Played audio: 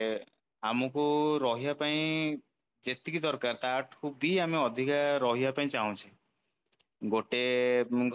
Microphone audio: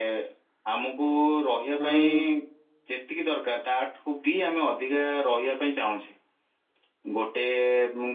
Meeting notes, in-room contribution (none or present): present